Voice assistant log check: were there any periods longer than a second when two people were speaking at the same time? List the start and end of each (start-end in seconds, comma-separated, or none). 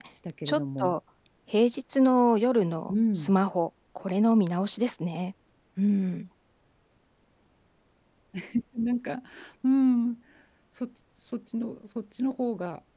none